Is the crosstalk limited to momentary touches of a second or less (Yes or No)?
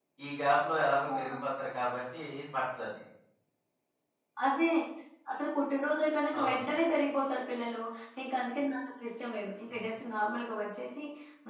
Yes